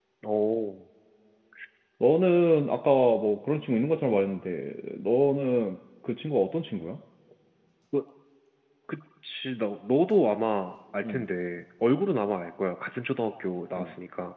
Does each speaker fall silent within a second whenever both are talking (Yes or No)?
Yes